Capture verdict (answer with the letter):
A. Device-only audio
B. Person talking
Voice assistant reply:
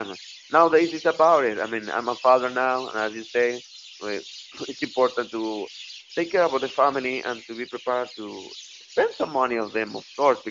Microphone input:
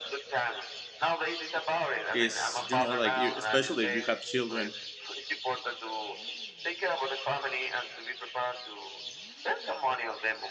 B